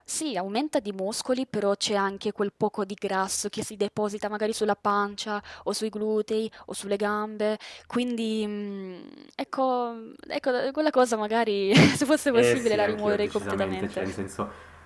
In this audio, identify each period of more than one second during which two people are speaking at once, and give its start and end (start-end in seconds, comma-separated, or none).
12.3-14.0